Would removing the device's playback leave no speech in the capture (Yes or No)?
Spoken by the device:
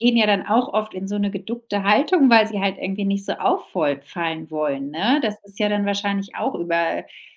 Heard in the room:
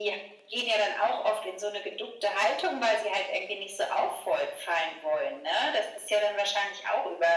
Yes